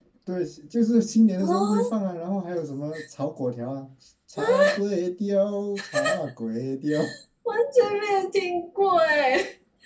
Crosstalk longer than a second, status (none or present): none